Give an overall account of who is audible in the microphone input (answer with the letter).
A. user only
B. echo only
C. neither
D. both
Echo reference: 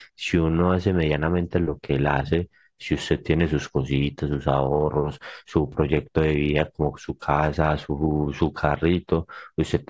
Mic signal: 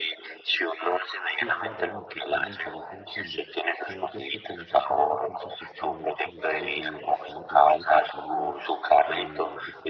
D